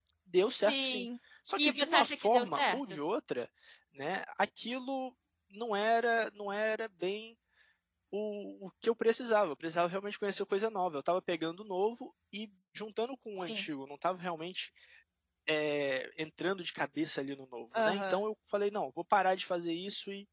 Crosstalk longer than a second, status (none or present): present